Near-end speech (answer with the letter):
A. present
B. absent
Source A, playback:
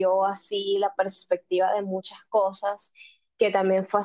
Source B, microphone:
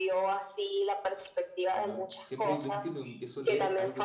A